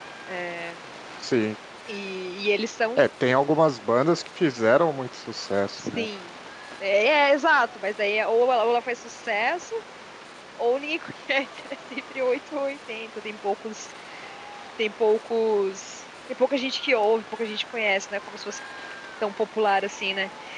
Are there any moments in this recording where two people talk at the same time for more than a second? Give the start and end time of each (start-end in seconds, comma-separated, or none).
none